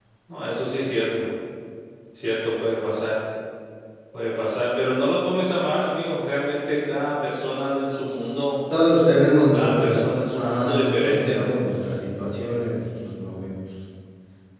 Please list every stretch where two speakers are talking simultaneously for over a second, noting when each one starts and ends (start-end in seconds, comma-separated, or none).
9.5-11.4